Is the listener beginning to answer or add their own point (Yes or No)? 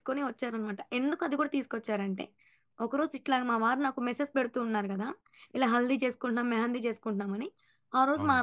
No